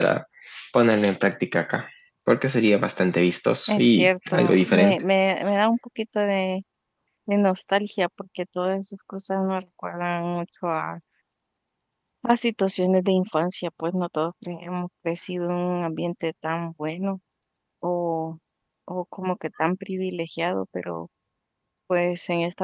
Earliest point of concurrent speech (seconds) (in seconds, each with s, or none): 3.7 s